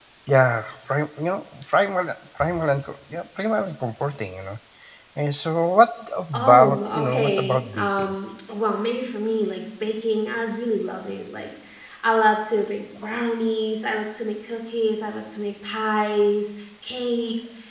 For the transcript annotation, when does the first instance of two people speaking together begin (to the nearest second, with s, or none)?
6 s